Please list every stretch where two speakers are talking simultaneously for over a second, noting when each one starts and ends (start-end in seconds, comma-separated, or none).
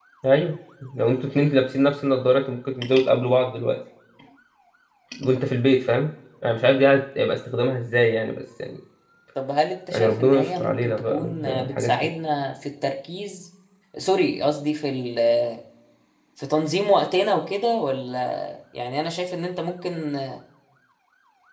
9.9-12.1